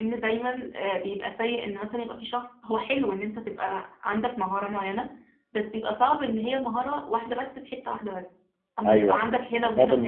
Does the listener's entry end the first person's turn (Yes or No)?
Yes